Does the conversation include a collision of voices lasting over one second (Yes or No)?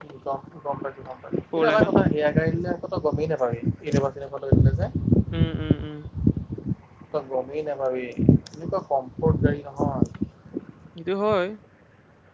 No